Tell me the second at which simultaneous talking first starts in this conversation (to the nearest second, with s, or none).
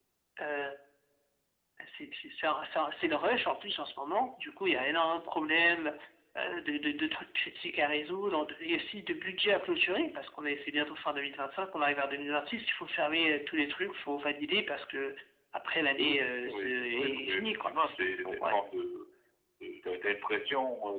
16 s